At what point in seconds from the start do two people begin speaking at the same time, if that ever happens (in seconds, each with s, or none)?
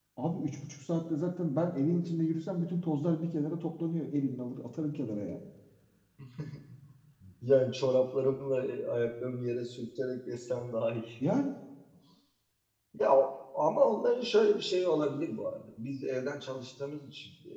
none